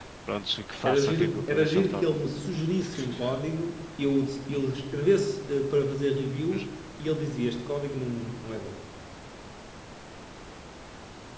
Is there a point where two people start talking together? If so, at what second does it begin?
0.8 s

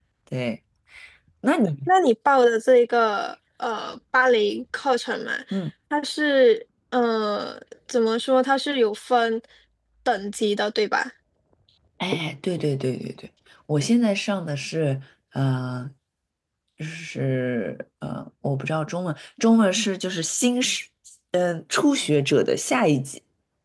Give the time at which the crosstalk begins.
none

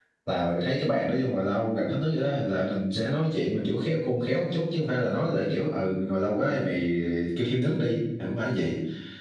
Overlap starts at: none

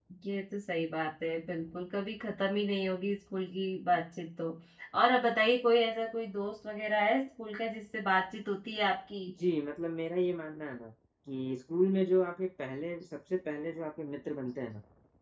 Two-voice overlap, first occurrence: none

